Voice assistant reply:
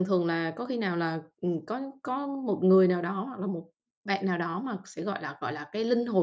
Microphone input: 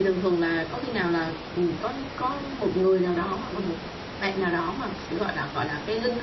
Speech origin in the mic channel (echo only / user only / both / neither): echo only